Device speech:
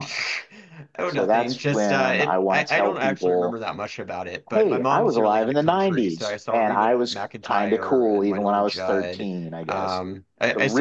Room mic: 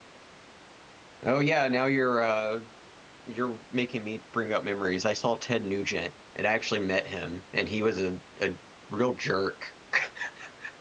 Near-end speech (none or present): present